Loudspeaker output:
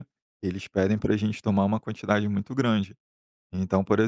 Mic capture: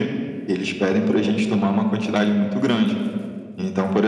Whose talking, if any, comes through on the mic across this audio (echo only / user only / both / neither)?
echo only